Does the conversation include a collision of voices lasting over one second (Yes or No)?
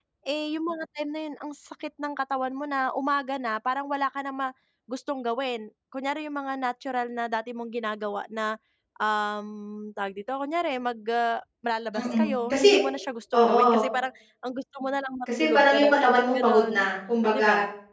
Yes